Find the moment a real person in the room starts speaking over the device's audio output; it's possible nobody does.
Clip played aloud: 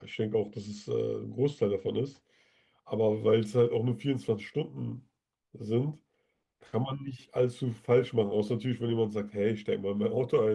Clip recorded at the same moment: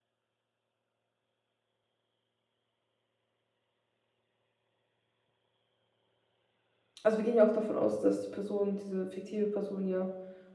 7.0 s

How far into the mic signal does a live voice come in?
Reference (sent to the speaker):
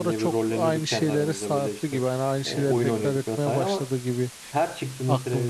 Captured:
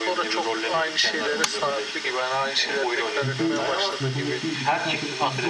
3.1 s

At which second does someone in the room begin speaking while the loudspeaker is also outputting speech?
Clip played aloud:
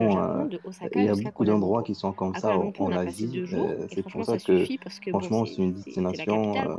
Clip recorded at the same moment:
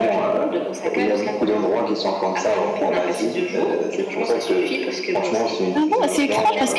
5.7 s

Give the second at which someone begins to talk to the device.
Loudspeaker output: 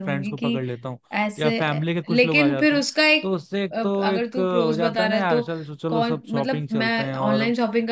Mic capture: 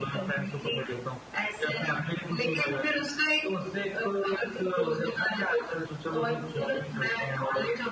none

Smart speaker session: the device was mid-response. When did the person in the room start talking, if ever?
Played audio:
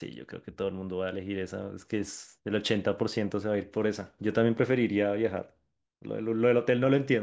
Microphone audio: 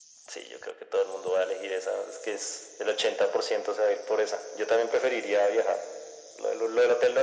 none

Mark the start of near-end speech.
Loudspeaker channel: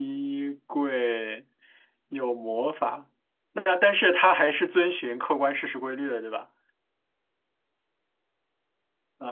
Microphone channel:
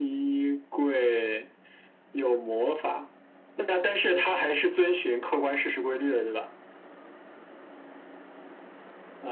none

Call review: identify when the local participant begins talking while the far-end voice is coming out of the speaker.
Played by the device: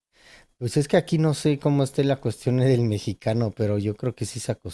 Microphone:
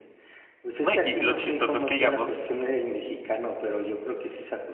0.8 s

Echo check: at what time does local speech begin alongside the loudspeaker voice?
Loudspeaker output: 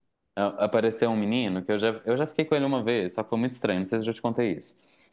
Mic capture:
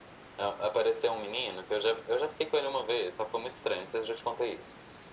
none

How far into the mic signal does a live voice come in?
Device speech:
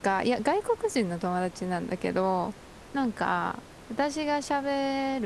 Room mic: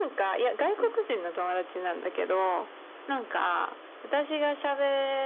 0.6 s

